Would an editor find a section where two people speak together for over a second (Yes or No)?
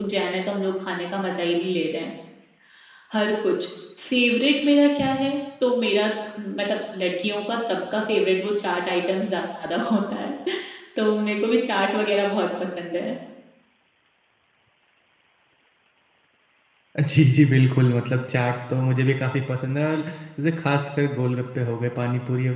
No